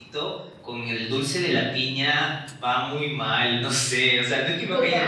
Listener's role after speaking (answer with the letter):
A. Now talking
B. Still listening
B